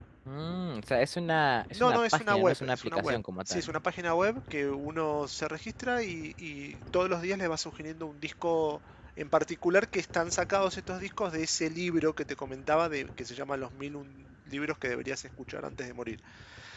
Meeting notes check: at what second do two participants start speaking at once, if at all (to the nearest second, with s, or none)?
2 s